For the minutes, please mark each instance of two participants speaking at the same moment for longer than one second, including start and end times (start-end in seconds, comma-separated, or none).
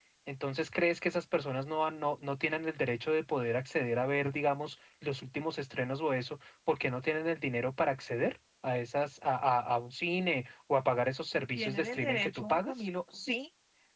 11.5-12.9